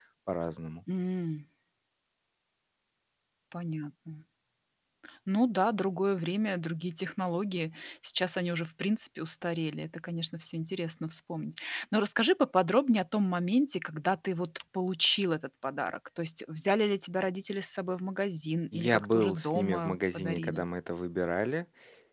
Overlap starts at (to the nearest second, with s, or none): 19 s